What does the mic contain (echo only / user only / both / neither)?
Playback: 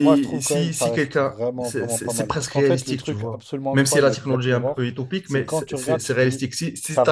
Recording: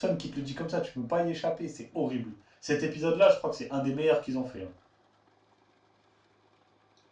user only